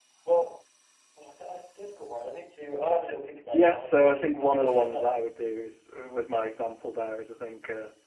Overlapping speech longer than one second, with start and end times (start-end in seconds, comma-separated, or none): 3.5-5.1